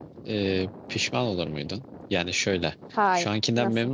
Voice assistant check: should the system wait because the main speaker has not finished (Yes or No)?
Yes